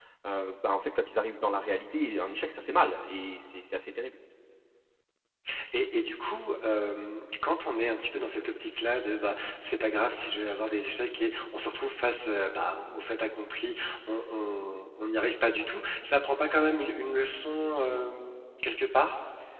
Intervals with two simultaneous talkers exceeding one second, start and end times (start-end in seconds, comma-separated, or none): none